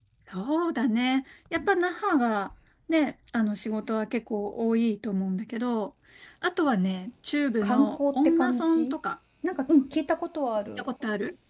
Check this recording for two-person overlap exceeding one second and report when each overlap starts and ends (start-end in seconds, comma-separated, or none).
7.6-9.0